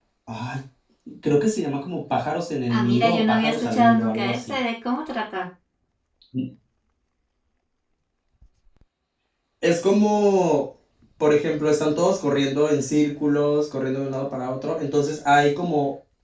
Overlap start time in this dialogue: 2.7 s

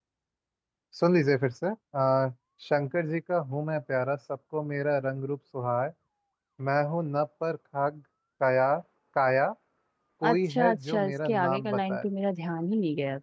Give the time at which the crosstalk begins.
10.2 s

